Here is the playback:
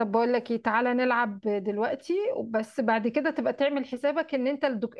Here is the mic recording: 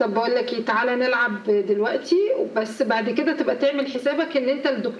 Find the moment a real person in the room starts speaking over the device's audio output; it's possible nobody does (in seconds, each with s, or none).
none